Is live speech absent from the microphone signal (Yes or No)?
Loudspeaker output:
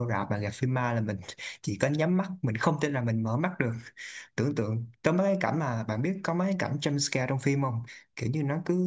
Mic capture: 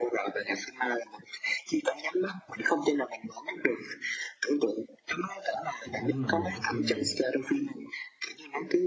No